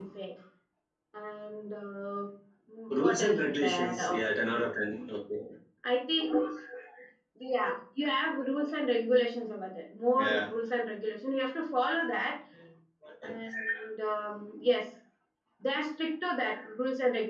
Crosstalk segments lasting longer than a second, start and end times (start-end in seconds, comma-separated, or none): 3.0-4.2